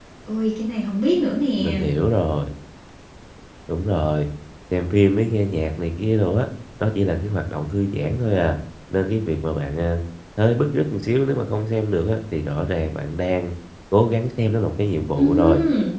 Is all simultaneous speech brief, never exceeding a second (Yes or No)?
Yes